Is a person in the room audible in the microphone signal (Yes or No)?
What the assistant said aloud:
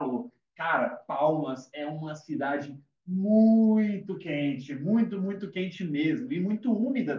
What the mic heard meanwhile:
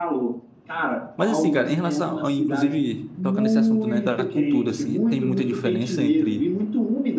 Yes